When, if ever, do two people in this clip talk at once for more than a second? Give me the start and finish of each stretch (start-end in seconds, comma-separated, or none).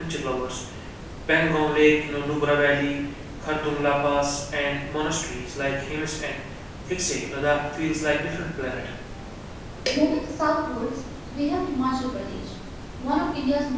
none